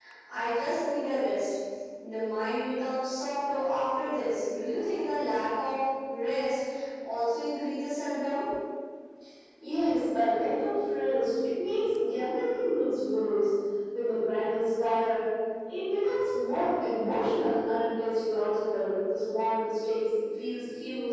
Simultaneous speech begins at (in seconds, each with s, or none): none